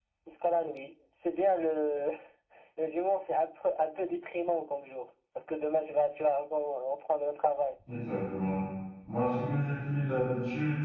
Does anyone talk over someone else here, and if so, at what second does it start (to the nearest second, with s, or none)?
none